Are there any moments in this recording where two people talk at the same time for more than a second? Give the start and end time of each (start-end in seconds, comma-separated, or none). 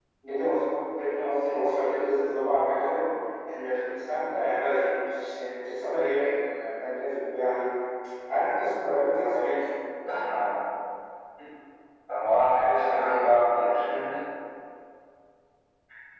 none